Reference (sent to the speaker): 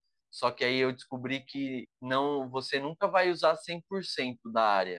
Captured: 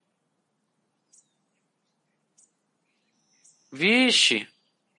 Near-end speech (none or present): present